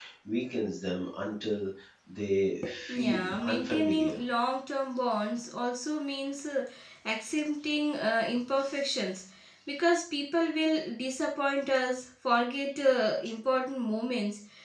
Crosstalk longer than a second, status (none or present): present